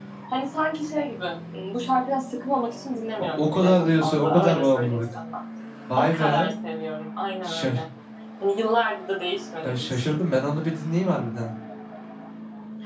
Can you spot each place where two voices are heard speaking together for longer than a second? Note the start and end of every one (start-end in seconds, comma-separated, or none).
3.4-5.0